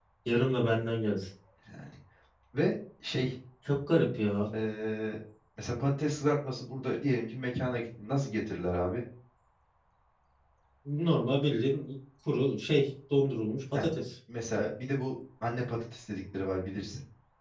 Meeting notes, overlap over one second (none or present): none